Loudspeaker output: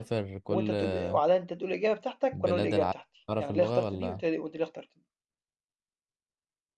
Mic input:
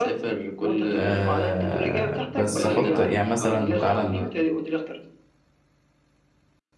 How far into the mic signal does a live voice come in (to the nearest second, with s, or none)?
1 s